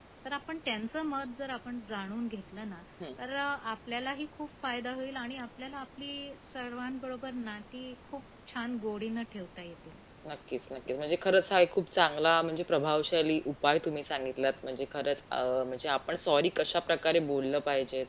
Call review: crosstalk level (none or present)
none